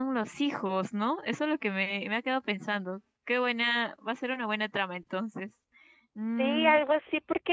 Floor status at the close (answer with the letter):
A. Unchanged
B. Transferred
B